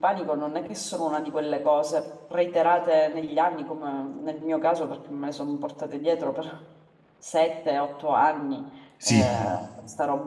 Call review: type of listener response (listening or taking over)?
listening